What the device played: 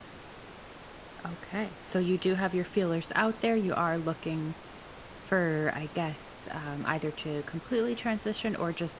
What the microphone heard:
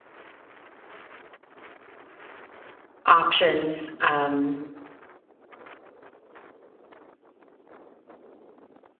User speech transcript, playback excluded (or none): options. Um,